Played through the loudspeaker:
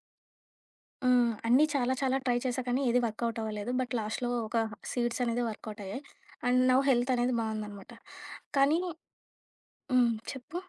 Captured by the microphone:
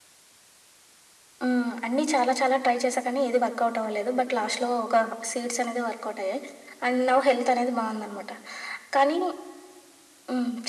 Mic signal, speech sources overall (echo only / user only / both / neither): echo only